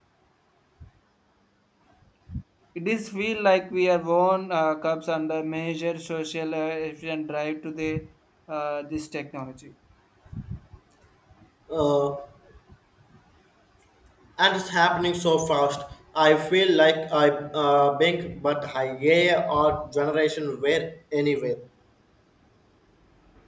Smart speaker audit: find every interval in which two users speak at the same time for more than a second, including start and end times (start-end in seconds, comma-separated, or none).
none